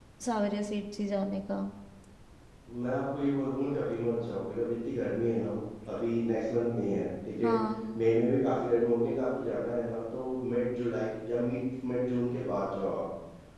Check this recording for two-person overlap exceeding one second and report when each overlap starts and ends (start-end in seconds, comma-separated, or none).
none